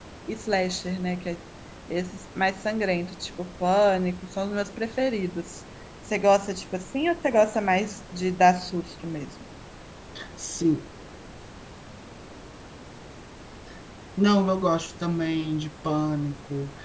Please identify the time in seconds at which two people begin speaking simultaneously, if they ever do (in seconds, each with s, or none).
none